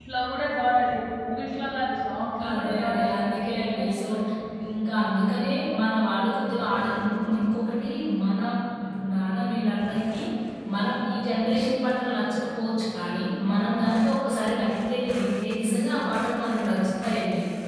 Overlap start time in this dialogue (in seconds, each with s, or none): 2.5 s